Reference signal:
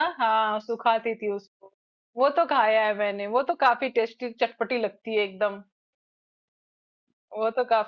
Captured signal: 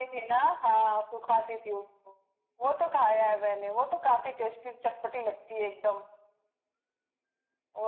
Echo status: present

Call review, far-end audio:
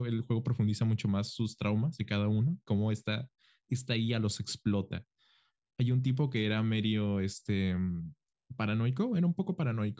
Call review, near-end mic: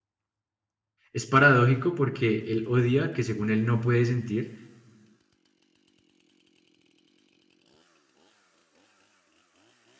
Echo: none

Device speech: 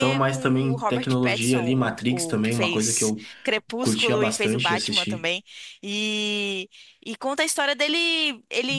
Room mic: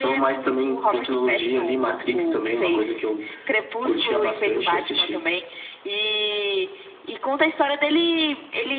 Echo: present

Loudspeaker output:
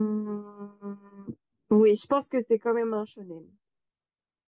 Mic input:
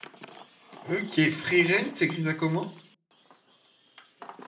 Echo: none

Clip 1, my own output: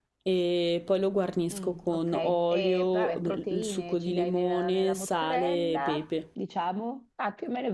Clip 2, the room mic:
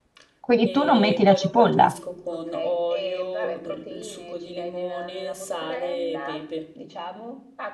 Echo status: present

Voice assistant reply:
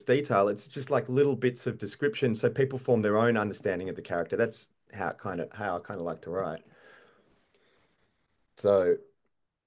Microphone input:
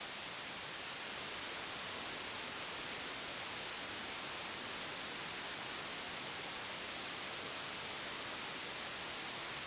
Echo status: none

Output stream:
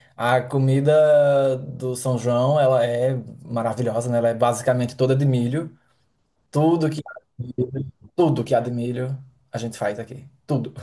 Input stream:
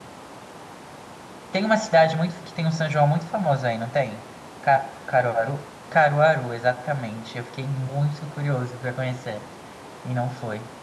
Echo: none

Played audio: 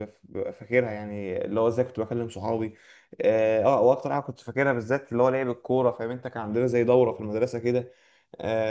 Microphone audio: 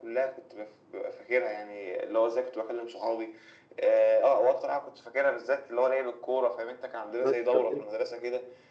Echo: present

